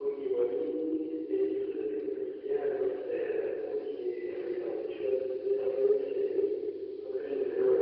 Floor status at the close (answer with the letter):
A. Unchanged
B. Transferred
B